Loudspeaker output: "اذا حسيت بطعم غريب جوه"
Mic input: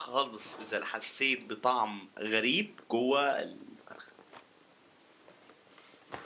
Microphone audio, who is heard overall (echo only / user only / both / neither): echo only